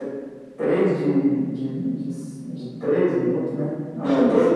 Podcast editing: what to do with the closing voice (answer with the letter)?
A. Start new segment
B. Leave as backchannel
A